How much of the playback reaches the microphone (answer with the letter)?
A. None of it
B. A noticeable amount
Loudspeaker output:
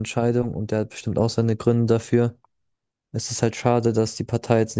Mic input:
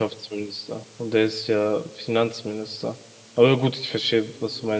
A